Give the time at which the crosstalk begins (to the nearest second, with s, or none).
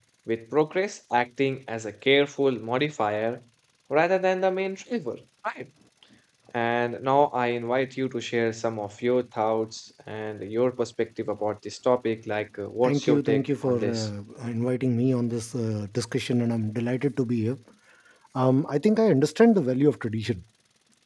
13 s